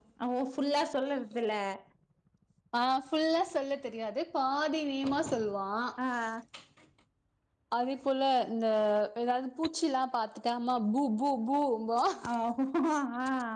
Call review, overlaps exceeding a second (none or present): none